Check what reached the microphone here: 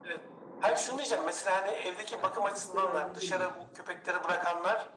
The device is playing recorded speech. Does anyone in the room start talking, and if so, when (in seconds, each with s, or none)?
2.1 s